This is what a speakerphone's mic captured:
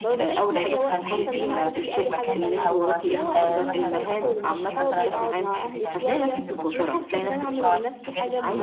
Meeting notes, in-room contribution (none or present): present